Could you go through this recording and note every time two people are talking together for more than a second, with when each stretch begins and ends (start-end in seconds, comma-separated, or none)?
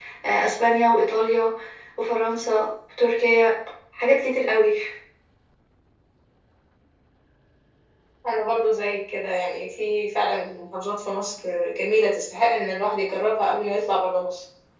none